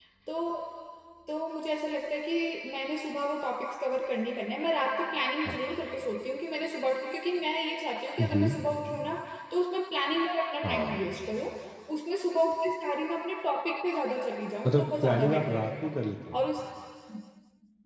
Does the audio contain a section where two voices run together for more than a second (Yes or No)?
Yes